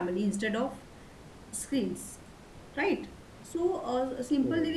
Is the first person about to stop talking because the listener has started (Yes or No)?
No